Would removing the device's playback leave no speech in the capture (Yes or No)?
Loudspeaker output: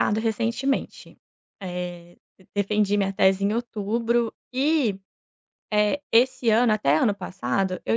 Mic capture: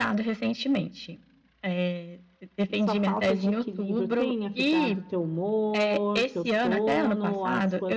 No